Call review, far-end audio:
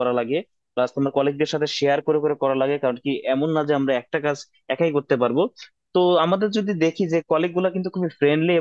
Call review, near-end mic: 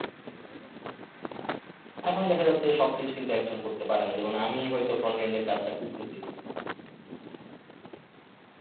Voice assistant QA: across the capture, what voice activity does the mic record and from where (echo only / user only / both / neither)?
user only